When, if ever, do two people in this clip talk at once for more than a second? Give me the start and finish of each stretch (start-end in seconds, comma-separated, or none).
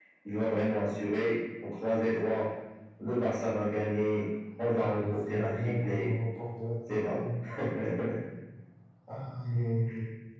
4.8-6.1